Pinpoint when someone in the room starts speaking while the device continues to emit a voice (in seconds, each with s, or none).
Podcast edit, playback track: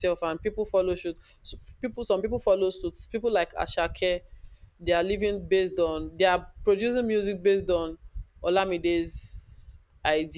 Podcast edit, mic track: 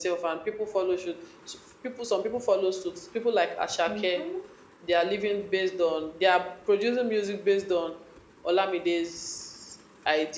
3.8 s